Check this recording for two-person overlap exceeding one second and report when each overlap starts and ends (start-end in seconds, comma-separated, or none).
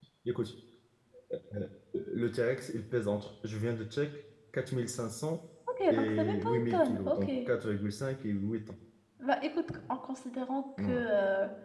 5.9-7.3